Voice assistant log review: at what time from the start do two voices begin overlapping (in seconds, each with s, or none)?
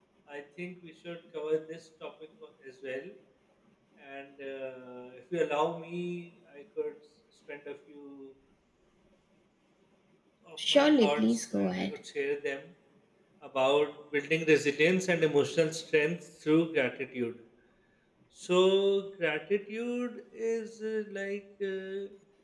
10.7 s